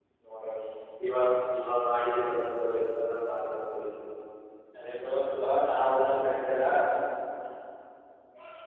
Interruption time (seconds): none

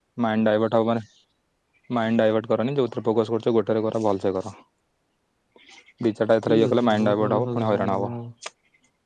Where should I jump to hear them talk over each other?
6.5 s

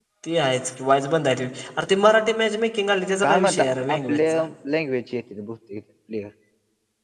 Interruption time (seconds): 3.2 s

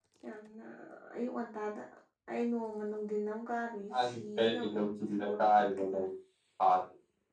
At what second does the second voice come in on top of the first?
3.9 s

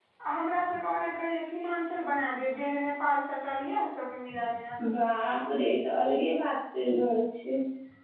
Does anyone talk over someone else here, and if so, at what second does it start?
none

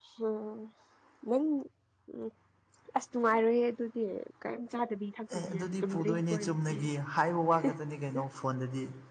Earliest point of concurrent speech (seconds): 5.3 s

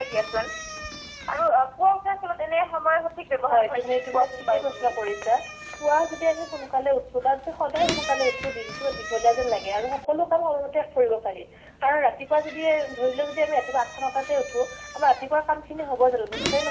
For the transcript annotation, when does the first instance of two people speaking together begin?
3.4 s

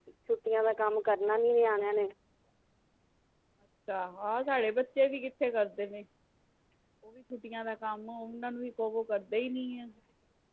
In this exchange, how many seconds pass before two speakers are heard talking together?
none

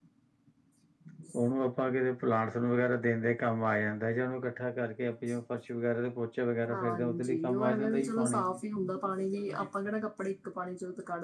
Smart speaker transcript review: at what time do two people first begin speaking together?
6.7 s

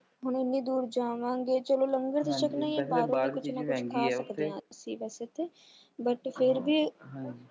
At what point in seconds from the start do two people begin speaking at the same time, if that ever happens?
2.2 s

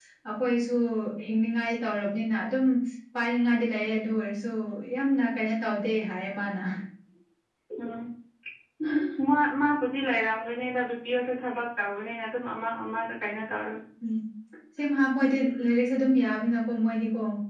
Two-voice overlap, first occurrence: none

